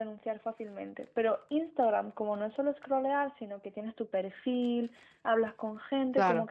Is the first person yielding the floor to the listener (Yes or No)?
No